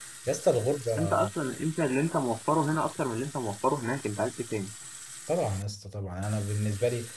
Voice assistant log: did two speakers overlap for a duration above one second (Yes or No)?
No